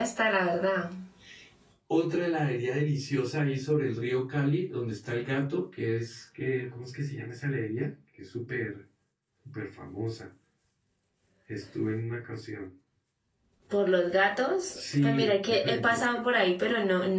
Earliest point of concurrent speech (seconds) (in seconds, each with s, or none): 14.7 s